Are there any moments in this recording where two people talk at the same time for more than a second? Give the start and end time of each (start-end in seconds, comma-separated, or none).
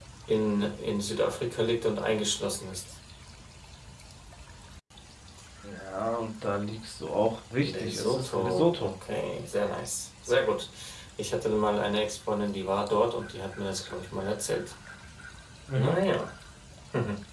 7.6-8.9